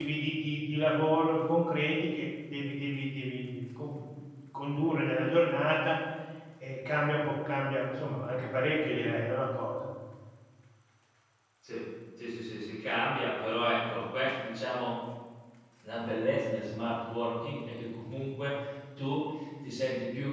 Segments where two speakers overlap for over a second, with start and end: none

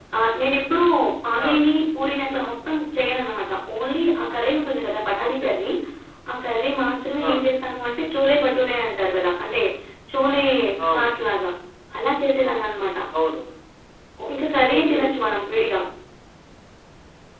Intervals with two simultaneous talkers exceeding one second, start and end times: none

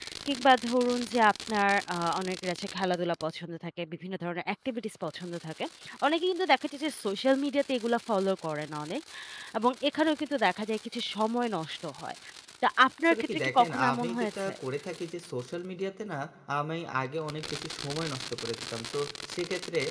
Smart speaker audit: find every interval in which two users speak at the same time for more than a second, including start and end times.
13.0-14.5

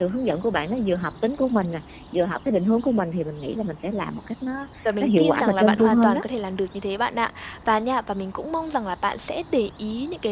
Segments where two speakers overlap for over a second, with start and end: 5.0-6.2

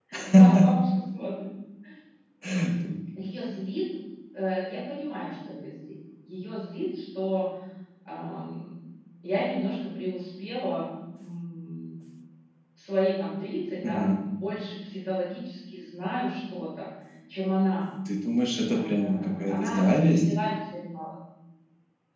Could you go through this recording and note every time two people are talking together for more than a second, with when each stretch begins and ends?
18.7-20.2

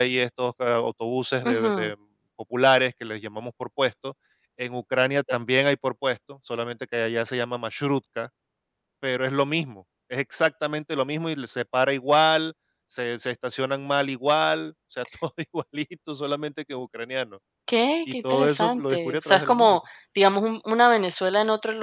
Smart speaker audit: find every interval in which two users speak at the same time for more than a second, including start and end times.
18.1-19.8

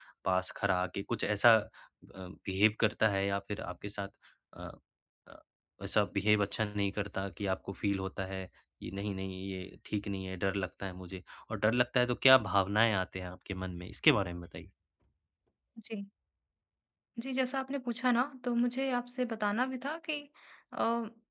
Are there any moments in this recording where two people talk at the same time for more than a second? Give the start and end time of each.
none

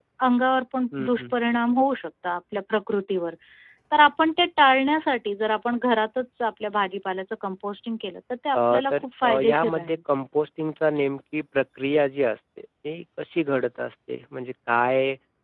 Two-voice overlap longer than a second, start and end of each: 8.5-10.0

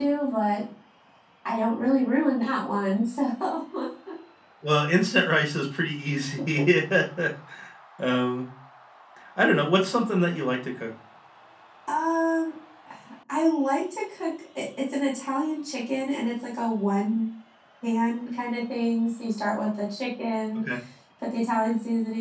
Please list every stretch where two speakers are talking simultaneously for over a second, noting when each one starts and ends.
none

